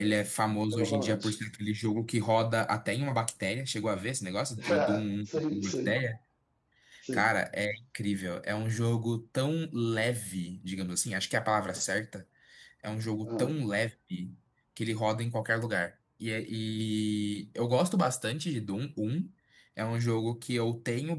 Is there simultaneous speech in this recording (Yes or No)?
Yes